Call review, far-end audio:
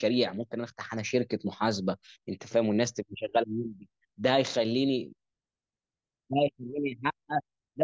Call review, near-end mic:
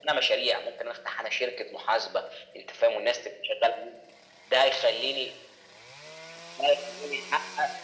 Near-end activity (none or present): none